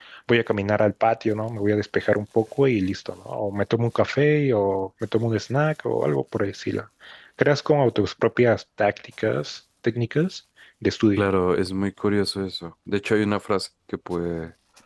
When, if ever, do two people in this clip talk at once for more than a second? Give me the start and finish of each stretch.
none

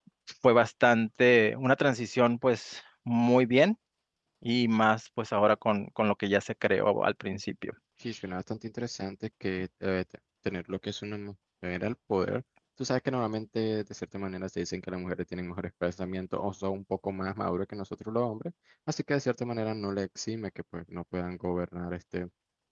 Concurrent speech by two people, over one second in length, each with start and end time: none

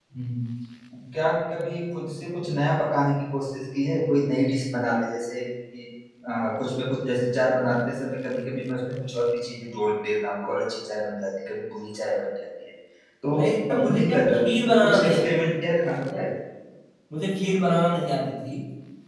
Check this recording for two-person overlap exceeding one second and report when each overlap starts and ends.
13.7-15.2

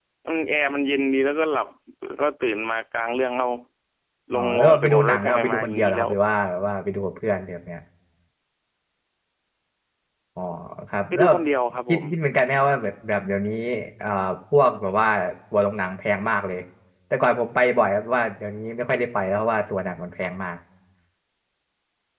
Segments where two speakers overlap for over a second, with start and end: 4.3-6.1

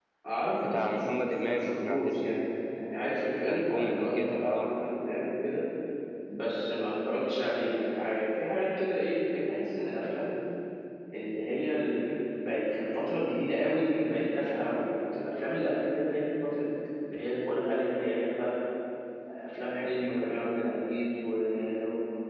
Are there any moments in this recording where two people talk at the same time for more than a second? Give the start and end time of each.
0.6-2.5, 3.4-4.7

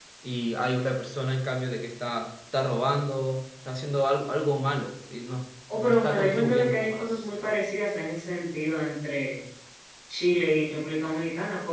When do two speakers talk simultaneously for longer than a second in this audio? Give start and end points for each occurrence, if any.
5.7-7.5

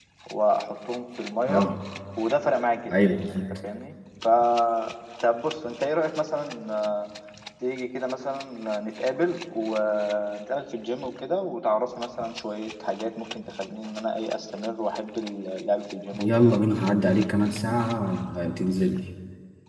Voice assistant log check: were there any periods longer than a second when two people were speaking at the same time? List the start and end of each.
none

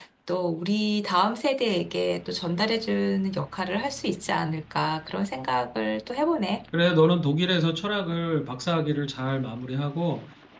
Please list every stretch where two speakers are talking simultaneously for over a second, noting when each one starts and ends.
none

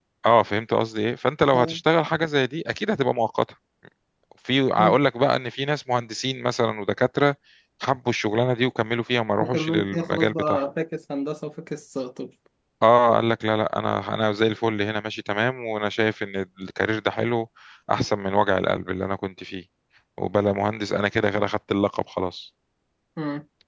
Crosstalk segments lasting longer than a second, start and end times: 9.4-10.6

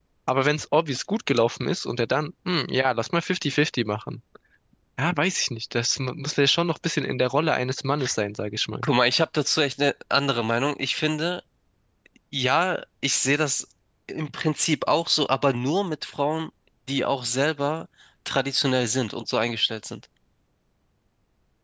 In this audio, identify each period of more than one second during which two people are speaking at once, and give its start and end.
none

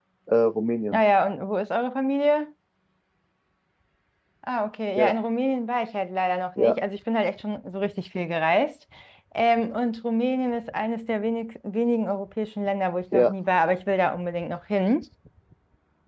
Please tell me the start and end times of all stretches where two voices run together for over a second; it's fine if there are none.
none

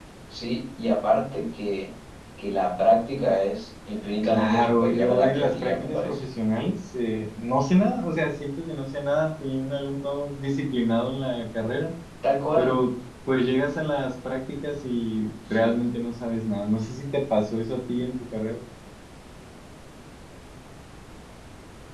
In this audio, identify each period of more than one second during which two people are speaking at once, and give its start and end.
4.2-6.2

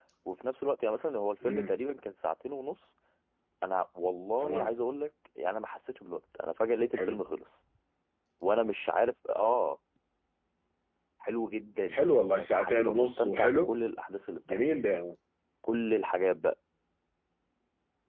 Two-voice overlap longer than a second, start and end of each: 11.9-13.7

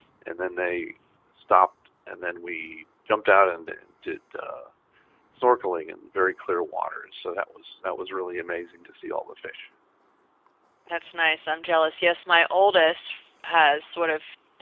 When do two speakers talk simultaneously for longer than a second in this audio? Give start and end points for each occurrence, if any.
none

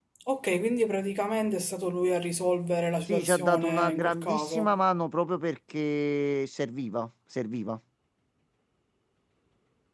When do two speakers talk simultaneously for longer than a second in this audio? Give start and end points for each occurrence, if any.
3.1-4.7

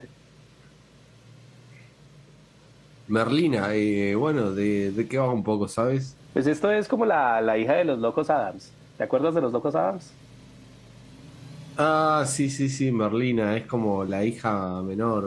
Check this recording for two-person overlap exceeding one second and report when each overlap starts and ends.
none

